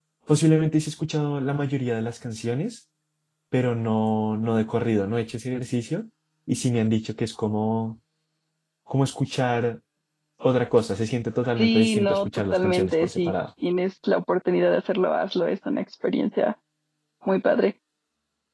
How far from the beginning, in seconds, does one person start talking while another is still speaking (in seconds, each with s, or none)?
11.6 s